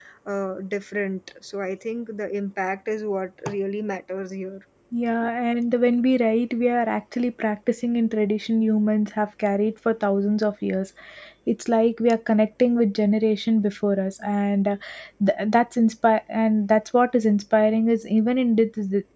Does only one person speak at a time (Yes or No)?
Yes